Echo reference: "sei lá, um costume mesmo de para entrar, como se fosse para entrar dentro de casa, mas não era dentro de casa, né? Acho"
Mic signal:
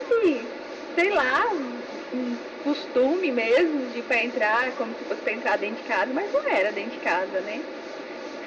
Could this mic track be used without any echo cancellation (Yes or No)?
No